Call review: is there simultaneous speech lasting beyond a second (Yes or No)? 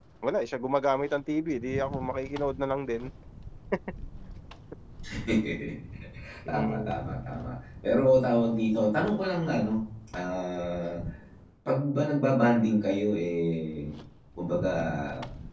No